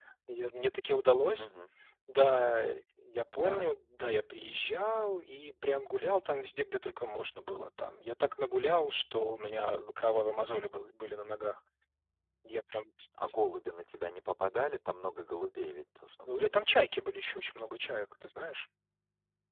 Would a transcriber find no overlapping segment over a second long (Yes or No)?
Yes